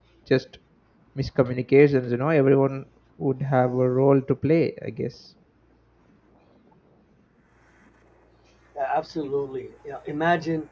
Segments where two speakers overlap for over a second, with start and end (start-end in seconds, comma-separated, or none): none